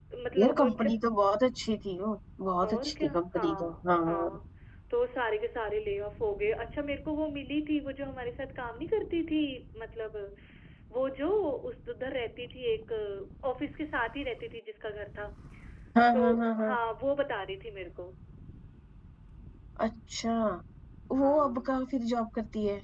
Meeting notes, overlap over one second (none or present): present